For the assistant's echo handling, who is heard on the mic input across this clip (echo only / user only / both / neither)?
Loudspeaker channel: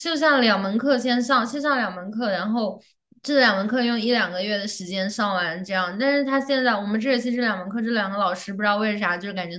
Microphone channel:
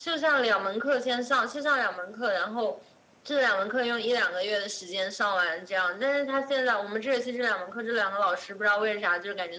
echo only